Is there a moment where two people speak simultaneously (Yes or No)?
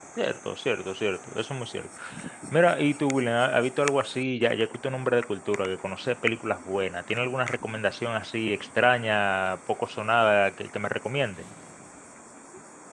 No